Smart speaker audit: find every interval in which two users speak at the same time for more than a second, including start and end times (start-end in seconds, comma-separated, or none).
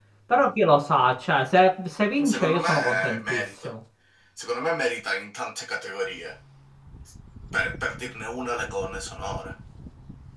2.2-3.7